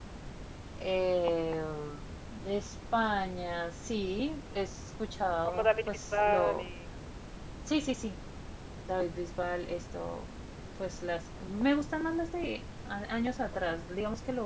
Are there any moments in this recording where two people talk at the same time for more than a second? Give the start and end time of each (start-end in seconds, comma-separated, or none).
5.4-6.7